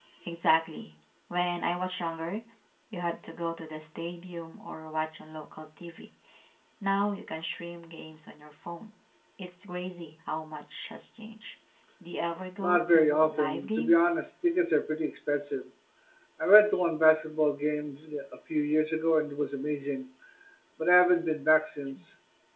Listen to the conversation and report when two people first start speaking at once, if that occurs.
13 s

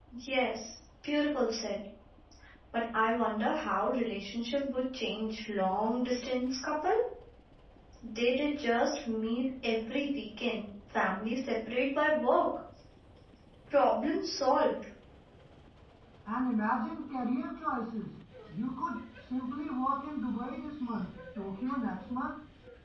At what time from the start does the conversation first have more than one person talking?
none

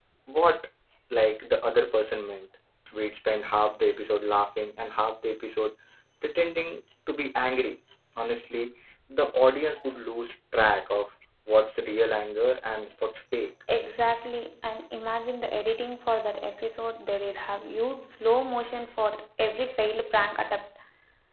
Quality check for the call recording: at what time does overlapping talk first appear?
none

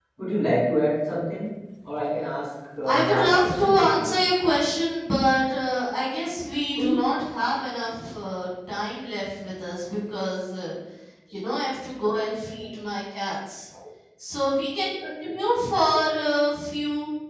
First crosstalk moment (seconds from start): 3 s

